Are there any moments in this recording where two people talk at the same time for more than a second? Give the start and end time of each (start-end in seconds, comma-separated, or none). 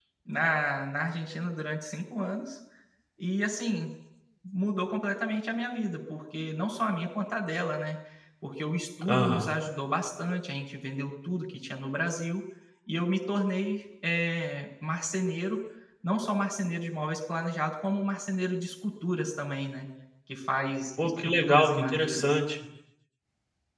21.0-22.4